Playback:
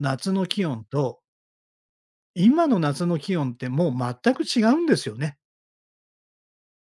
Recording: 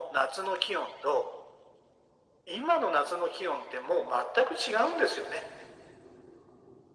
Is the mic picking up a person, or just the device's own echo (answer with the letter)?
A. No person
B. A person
A